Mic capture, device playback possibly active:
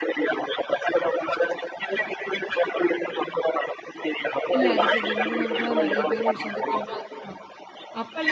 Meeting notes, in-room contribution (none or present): present